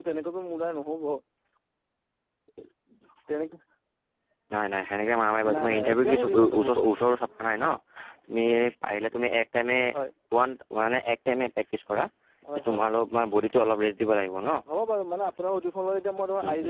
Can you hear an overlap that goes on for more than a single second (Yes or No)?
Yes